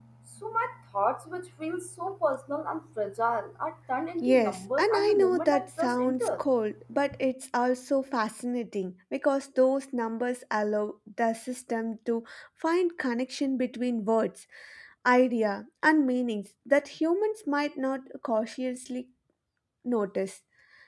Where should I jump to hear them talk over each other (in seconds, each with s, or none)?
4.2 s